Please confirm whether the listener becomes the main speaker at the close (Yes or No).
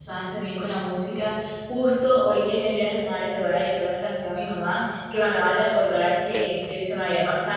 No